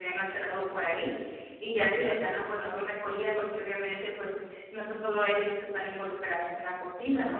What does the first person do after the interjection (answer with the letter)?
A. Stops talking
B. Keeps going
B